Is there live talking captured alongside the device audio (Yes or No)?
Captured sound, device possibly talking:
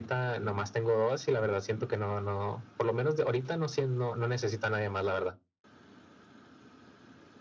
No